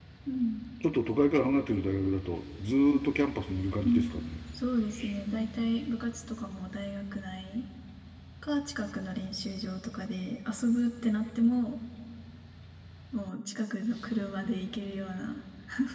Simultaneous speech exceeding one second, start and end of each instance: none

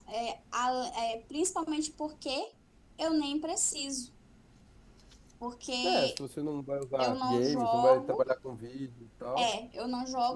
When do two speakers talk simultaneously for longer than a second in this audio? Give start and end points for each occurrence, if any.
7.0-8.2

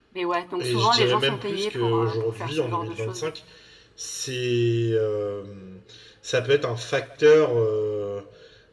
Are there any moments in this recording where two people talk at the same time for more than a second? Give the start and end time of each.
0.6-3.2

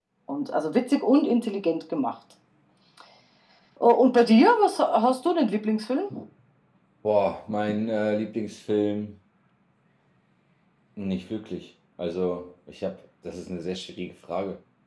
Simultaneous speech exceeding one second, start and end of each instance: none

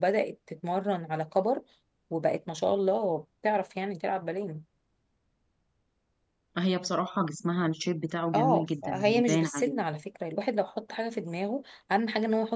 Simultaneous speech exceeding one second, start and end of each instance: 8.3-9.8

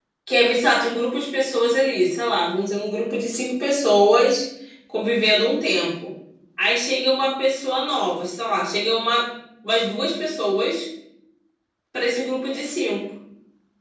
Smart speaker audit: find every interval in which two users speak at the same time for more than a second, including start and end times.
none

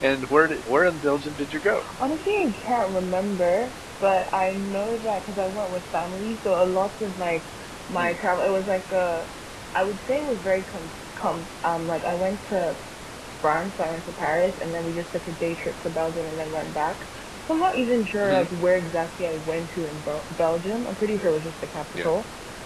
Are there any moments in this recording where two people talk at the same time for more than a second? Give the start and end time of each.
none

